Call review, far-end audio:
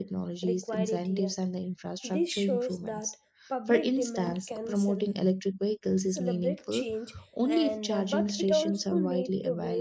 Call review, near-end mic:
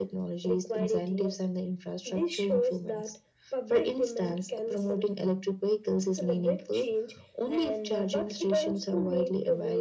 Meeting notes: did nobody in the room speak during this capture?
Yes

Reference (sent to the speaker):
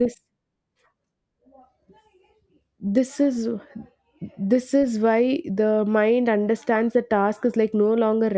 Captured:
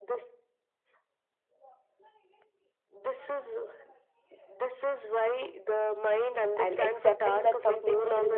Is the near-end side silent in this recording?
No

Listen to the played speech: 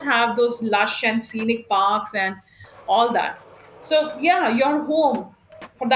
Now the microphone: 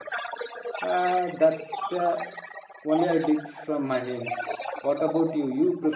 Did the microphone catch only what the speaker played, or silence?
No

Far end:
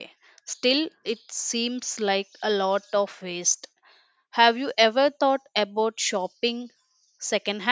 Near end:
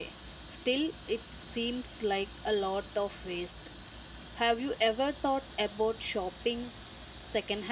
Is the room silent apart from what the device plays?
Yes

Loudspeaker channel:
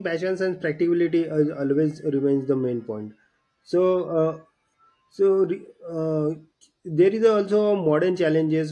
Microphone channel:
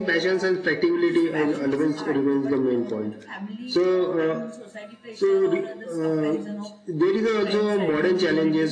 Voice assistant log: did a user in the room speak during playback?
Yes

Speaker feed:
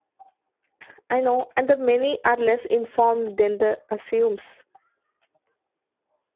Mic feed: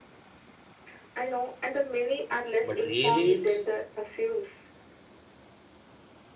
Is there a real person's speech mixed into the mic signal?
Yes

